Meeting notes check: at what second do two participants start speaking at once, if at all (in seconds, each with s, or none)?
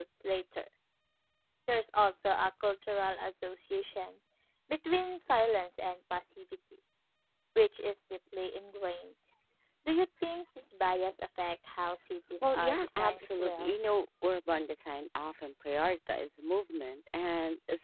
12.4 s